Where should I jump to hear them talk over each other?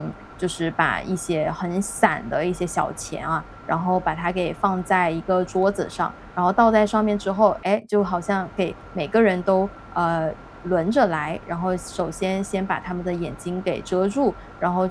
none

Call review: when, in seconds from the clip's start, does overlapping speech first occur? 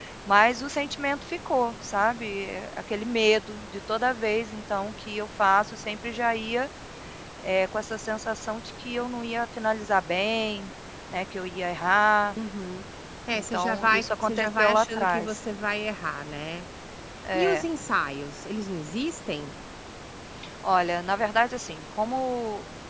13.3 s

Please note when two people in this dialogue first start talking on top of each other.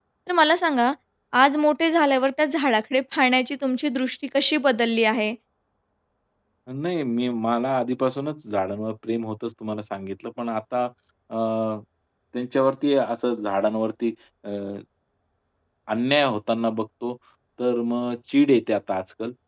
none

